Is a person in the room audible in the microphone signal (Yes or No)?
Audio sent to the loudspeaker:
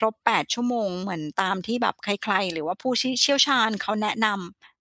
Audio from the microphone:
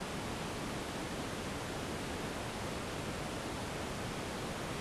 No